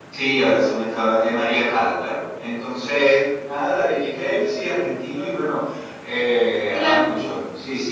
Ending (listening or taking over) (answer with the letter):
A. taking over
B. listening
B